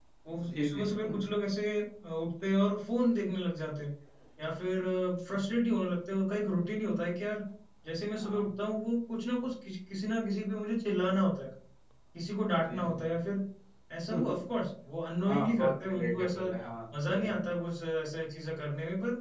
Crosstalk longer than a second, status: present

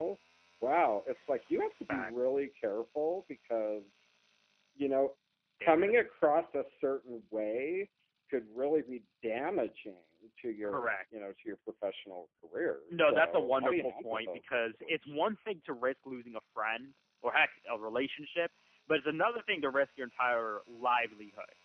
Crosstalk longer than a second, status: present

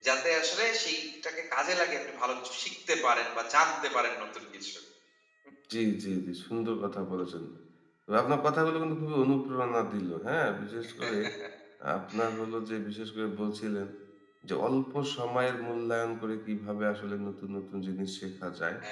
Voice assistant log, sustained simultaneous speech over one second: none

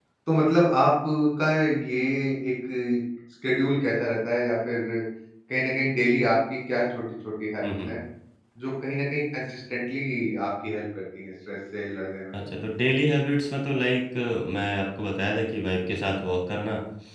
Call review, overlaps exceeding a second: none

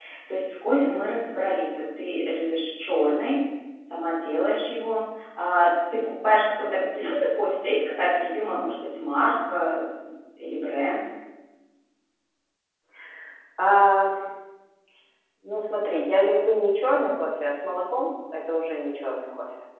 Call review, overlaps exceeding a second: none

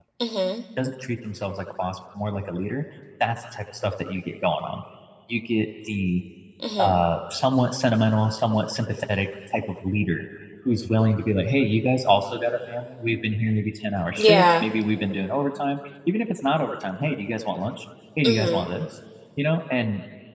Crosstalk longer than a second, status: none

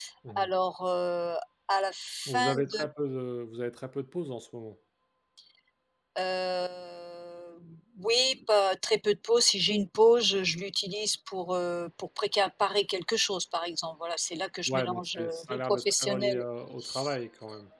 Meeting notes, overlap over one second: present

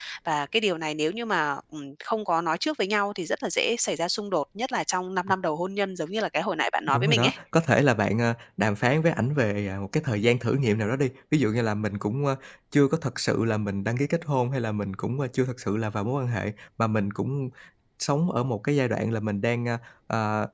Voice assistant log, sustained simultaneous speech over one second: none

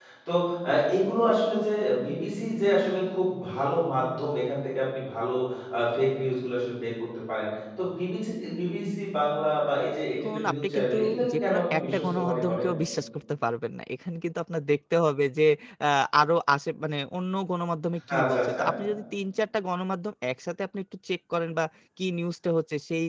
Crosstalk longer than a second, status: present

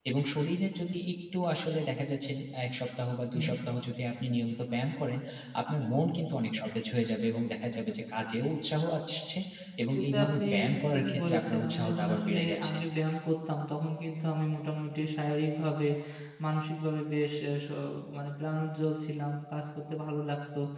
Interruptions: present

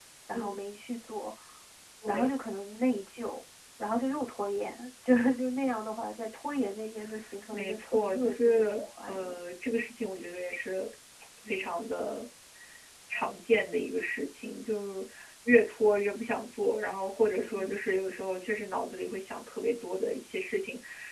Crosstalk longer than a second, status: present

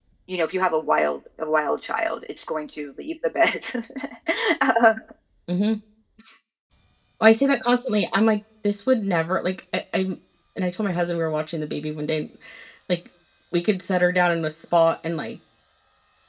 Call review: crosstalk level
none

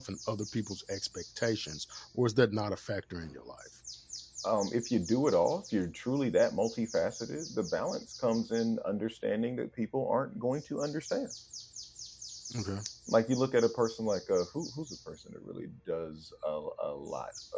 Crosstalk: none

